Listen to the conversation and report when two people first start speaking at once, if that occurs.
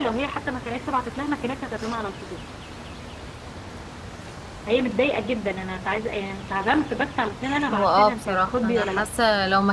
8 s

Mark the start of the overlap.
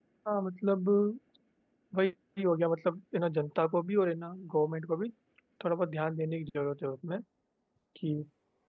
none

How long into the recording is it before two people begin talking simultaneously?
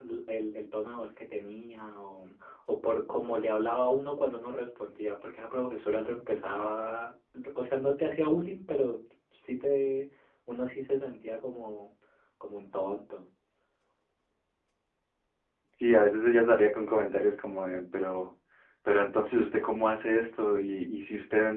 none

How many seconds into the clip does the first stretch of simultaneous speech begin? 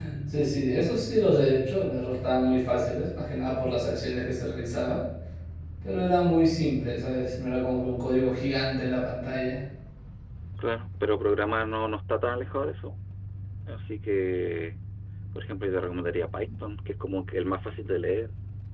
none

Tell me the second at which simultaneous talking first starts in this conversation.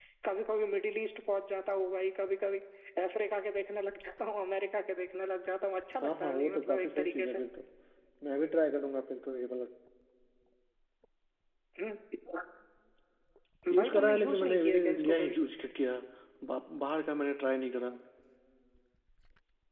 6 s

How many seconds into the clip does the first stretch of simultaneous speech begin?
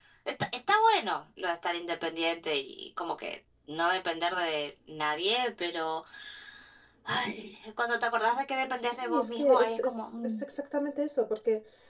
9 s

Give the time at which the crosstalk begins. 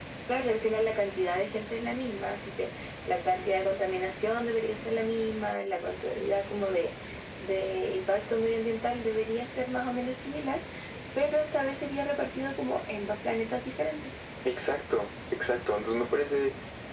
none

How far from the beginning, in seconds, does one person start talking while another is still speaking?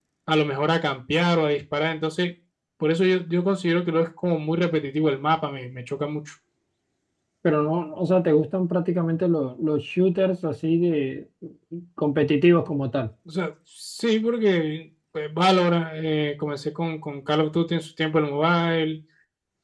none

